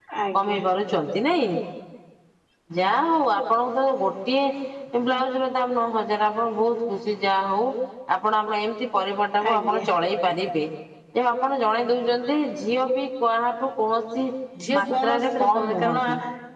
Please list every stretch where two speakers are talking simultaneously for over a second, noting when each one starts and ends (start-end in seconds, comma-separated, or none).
14.8-16.0